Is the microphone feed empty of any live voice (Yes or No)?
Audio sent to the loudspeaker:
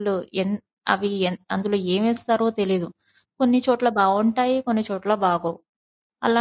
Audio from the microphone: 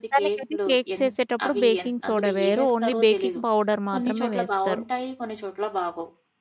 No